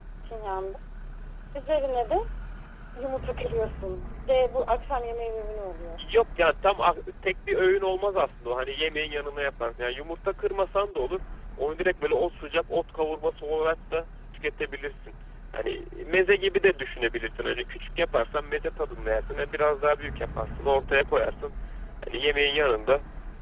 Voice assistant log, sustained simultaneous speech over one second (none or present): none